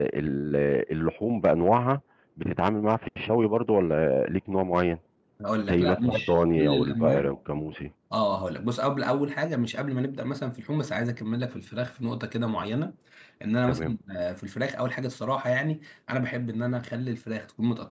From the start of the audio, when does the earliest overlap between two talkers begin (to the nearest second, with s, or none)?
6 s